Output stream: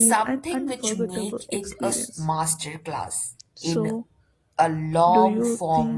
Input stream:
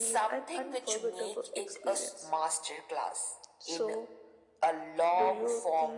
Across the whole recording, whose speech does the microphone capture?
echo only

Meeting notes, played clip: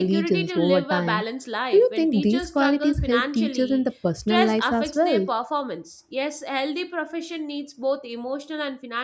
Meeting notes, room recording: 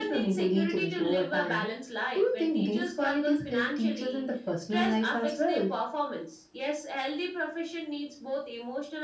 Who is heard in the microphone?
echo only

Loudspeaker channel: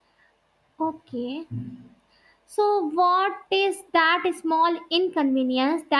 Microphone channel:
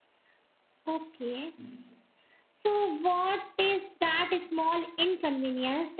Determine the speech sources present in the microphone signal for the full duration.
echo only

